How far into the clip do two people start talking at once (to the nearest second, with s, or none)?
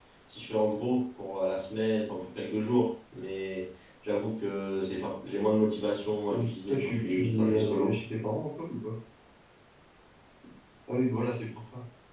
6 s